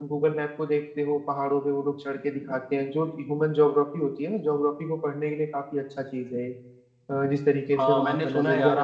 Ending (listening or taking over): taking over